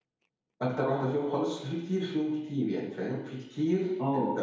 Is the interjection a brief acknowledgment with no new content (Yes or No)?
No